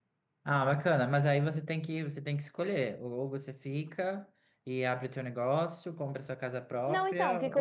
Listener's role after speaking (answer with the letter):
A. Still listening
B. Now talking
B